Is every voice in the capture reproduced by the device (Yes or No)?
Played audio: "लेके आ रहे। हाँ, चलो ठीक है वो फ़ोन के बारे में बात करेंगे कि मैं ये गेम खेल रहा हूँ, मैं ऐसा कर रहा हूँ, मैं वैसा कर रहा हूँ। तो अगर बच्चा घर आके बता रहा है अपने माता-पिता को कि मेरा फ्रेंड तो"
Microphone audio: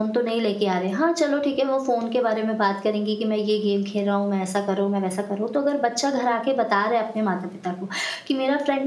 Yes